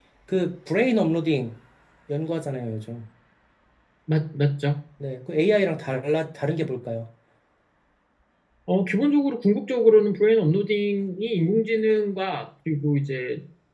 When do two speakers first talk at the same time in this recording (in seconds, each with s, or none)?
none